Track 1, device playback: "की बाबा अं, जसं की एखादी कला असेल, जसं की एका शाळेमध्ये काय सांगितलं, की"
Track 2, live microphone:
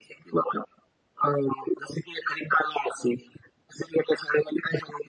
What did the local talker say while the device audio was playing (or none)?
none